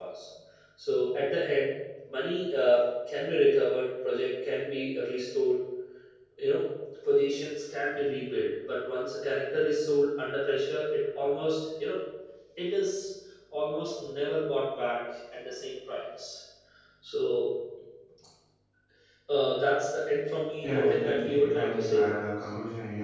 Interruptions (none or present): present